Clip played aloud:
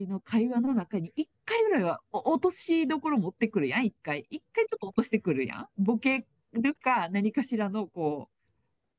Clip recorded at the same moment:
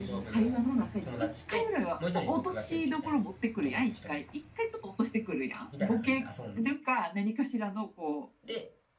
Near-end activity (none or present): present